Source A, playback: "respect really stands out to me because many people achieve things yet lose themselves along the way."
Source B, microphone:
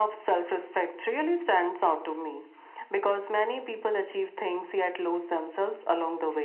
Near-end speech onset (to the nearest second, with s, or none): none